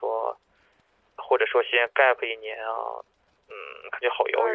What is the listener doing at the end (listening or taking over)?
taking over